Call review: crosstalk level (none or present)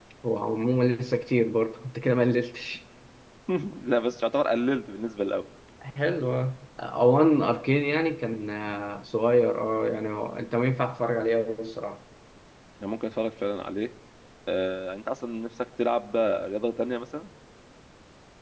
none